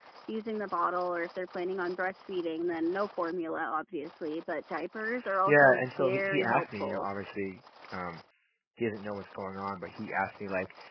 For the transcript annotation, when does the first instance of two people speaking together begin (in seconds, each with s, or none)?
5.5 s